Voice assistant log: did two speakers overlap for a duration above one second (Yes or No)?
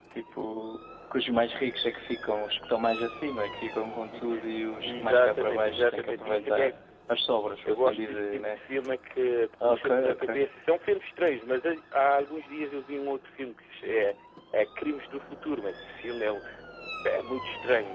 Yes